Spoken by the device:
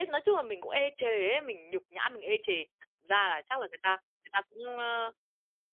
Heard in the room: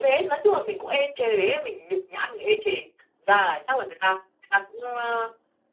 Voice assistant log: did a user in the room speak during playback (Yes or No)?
No